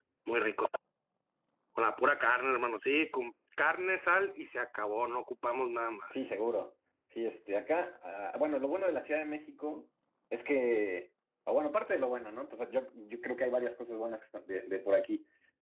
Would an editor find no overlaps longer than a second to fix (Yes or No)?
Yes